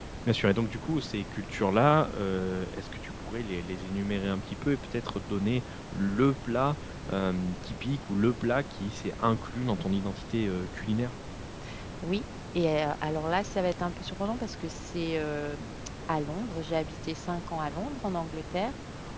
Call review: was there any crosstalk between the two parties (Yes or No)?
No